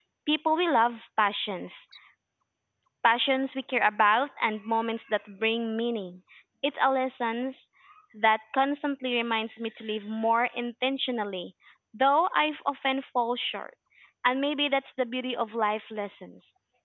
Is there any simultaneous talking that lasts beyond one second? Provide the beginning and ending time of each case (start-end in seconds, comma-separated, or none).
none